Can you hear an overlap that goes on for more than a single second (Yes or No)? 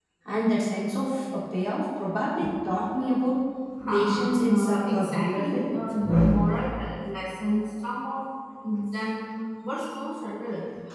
Yes